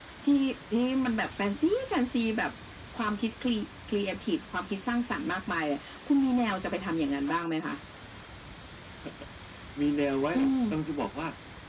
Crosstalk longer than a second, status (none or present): none